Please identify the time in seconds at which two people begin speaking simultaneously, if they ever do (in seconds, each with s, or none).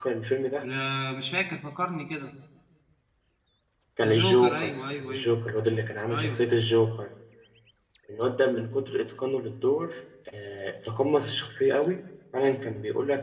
4.0 s